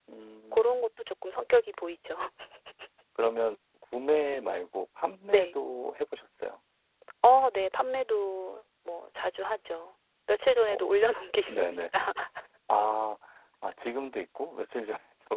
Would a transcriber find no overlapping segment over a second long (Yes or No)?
Yes